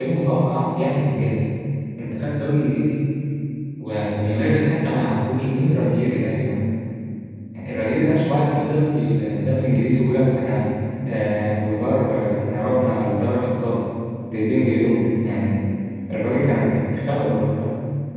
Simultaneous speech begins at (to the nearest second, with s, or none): none